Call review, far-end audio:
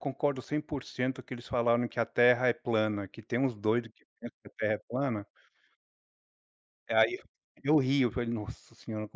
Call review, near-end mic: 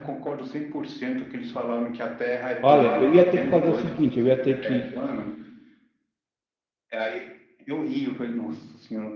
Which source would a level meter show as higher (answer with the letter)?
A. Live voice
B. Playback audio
A